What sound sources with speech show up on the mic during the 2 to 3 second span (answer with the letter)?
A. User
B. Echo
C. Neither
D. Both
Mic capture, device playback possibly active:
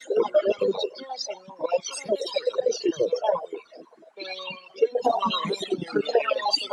B